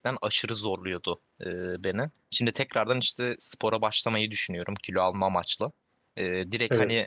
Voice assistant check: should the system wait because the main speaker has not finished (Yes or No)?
Yes